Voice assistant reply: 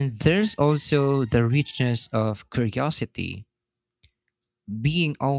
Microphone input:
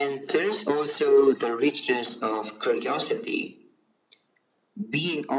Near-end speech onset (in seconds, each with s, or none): none